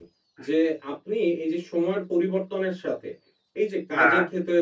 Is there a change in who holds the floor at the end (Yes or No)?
No